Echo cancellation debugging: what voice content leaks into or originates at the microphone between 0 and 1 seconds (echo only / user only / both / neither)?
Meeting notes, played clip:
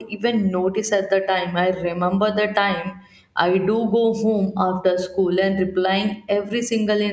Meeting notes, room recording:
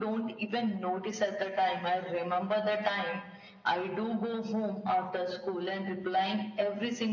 echo only